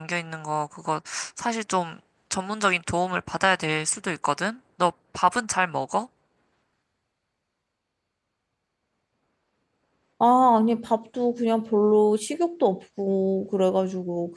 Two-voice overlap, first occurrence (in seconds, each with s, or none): none